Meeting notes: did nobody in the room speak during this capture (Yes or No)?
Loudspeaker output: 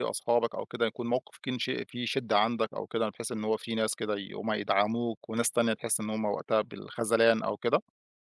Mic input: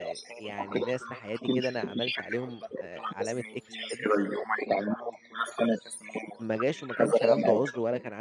No